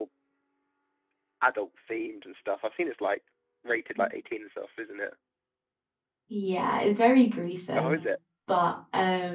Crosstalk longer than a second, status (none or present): none